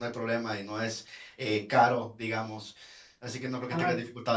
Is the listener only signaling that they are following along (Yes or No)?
Yes